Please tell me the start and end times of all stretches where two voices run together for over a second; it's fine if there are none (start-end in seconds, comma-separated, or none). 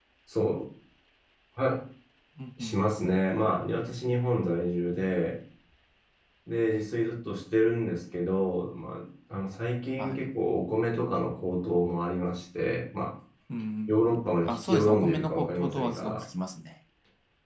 14.4-16.2